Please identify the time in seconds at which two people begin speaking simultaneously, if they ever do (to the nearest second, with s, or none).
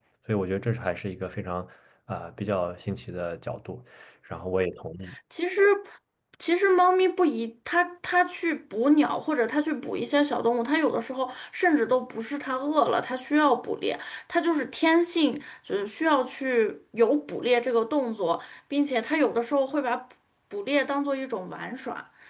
none